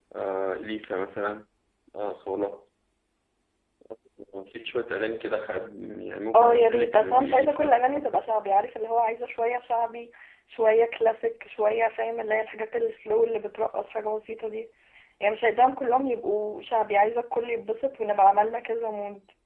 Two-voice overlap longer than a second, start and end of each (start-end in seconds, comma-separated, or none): 6.3-8.3